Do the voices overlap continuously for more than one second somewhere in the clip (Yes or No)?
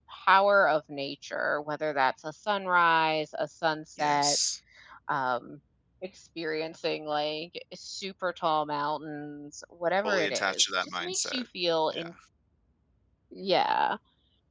Yes